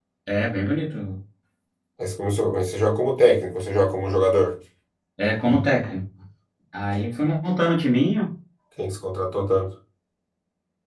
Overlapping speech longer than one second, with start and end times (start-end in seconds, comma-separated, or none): none